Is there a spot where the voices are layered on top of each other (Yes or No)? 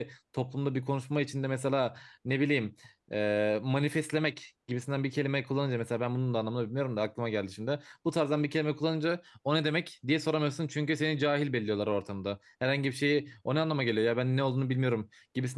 No